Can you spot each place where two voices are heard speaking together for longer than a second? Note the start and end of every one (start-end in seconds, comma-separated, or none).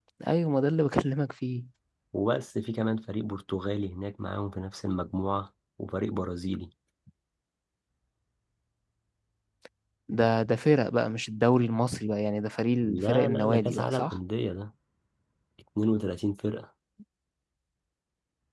12.8-14.2